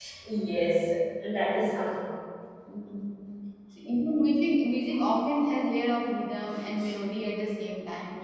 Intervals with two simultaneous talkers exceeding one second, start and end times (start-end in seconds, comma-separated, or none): none